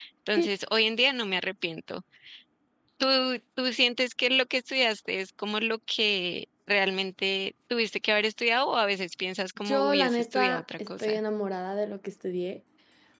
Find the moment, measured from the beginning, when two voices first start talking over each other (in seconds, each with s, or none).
9.6 s